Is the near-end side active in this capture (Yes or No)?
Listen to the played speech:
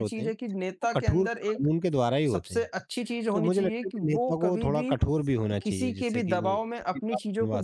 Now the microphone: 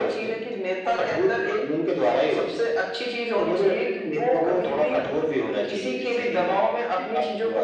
No